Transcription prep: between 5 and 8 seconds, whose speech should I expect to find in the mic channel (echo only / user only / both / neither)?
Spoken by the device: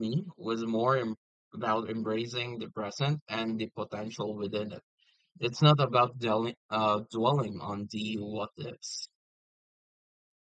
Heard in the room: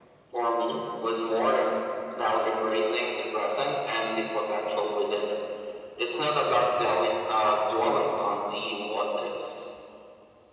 echo only